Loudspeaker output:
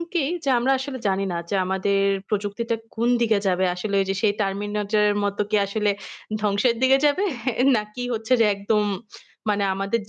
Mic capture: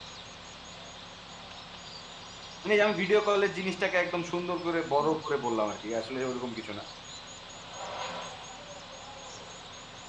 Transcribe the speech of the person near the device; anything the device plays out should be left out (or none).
মানে আমি ভিডিও কলের জিনিসটাকে একদম সুন্দর করে বড় করে বললাম আরকি। আসলে ওইরকম কিছু না।